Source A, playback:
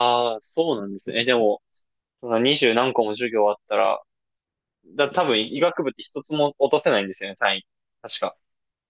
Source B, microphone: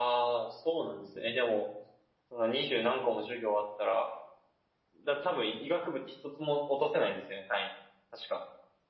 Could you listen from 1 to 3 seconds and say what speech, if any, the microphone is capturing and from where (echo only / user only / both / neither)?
echo only